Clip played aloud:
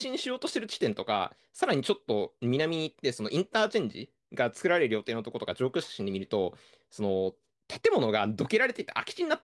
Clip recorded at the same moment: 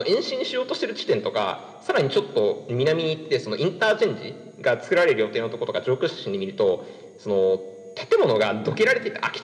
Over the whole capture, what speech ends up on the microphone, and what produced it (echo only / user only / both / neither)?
echo only